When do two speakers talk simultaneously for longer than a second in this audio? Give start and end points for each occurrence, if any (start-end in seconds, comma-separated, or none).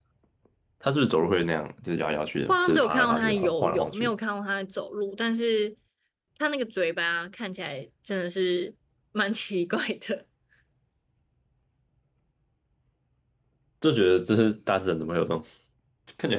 2.5-4.1